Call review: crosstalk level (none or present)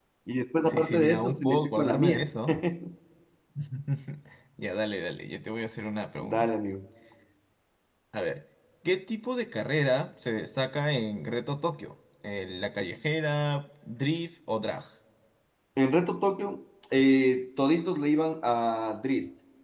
present